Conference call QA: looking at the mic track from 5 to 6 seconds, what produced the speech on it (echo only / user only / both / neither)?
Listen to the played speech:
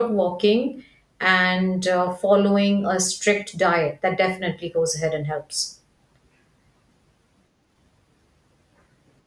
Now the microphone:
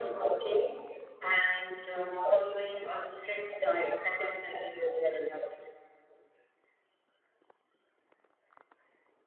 echo only